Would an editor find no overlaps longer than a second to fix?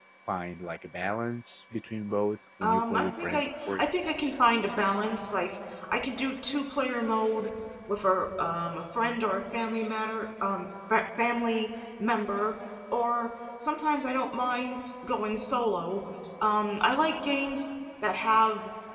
No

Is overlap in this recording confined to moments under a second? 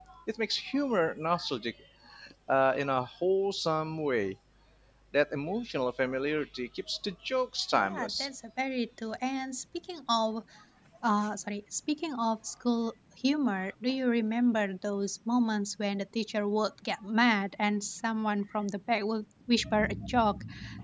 Yes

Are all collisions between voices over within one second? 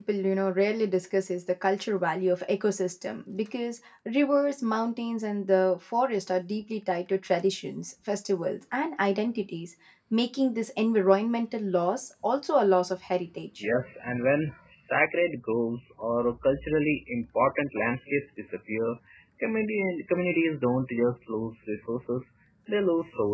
Yes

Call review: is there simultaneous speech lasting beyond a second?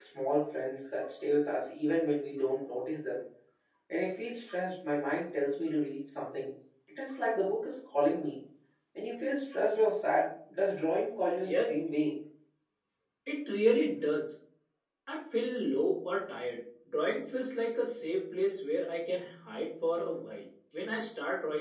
No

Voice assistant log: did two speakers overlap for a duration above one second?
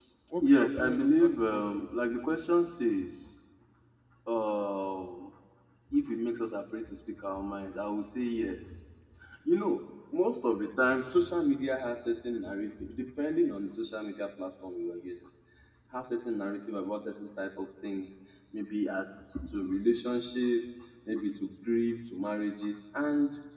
Yes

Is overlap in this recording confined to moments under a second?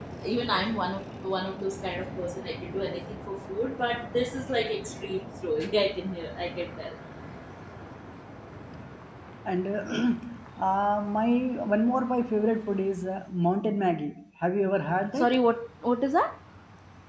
Yes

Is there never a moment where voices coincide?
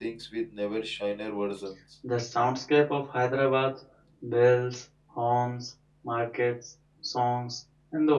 Yes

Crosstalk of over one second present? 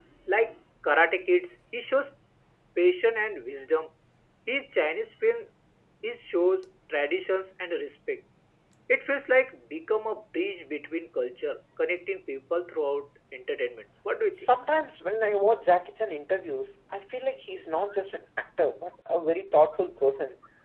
No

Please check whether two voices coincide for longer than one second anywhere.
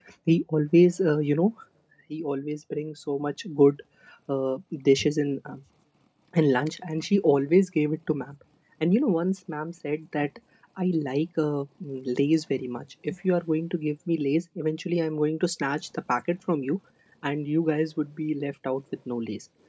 No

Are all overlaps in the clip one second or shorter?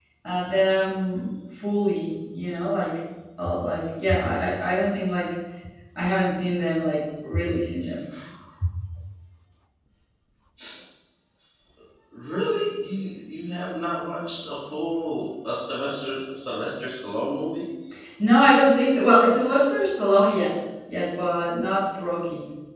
Yes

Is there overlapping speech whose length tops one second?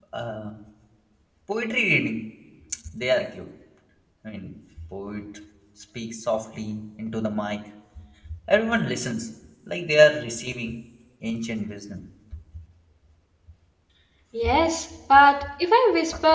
No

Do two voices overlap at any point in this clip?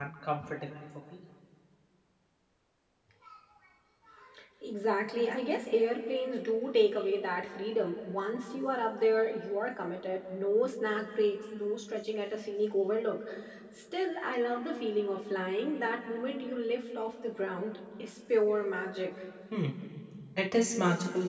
No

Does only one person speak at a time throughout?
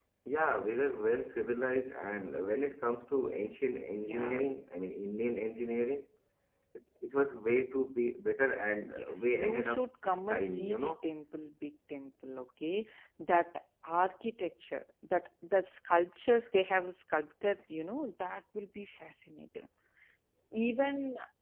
No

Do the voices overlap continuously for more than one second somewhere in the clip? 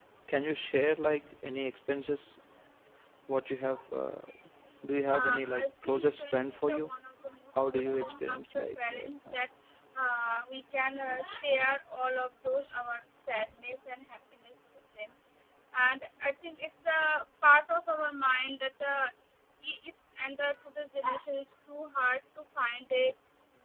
Yes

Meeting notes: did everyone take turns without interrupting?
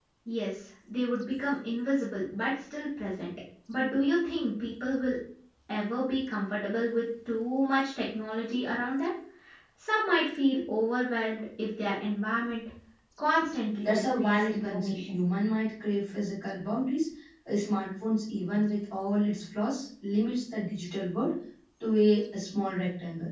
No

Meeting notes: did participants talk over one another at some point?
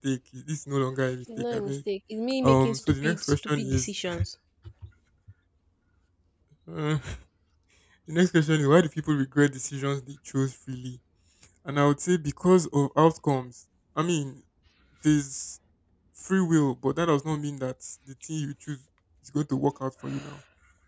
Yes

